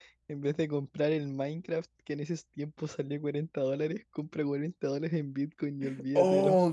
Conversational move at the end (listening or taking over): taking over